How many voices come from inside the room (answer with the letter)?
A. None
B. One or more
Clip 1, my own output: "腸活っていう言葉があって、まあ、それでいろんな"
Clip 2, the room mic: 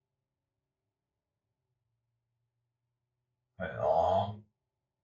B